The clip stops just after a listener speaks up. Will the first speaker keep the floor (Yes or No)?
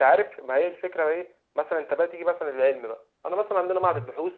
Yes